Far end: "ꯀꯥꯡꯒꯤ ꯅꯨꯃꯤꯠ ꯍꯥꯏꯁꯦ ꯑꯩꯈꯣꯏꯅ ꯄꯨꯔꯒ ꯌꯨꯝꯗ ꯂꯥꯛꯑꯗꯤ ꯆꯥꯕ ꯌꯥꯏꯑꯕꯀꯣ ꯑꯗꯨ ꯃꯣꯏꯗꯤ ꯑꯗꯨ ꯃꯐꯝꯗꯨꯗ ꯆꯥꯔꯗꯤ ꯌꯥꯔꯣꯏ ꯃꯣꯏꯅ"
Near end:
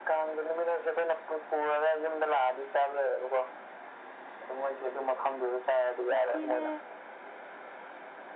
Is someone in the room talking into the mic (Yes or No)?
Yes